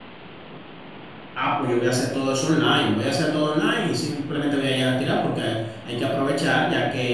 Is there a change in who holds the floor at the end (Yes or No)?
No